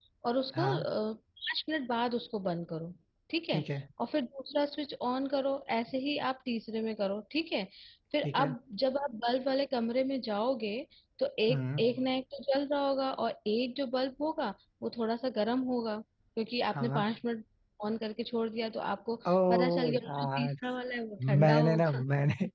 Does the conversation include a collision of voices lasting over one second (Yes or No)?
Yes